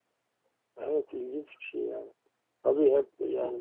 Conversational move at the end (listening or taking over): listening